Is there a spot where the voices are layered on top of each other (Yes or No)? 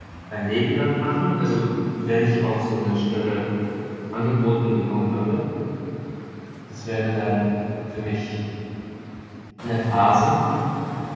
No